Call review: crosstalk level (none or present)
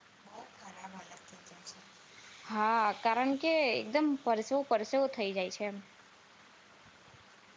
none